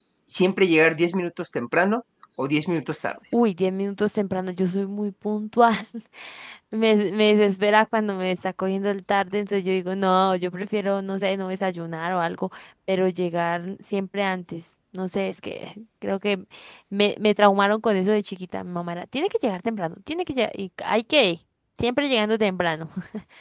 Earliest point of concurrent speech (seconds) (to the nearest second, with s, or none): none